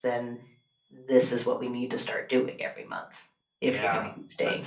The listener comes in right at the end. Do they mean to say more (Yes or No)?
Yes